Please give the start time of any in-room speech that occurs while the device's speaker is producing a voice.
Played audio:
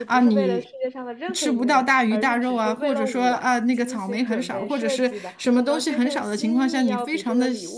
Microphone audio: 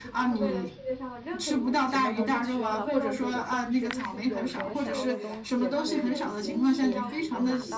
1.9 s

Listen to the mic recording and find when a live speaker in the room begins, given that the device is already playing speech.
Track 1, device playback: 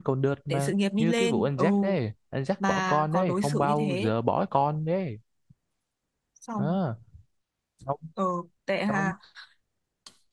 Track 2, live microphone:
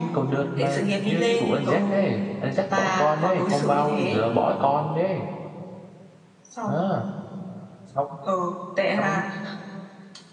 none

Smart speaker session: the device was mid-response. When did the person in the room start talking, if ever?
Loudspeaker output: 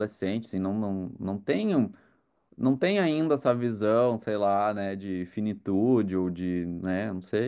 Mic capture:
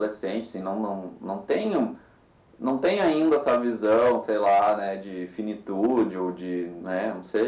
none

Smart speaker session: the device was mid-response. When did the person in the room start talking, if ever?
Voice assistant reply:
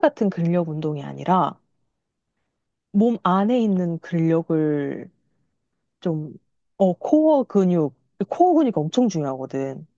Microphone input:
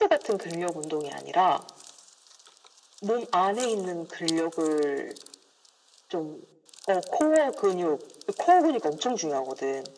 none

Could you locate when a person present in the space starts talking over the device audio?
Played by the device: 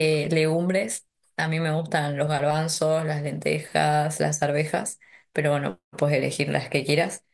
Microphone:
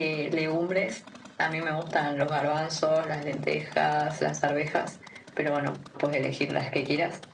none

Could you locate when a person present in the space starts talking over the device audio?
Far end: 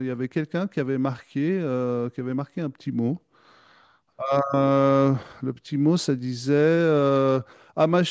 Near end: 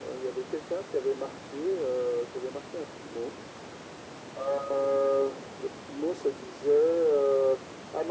none

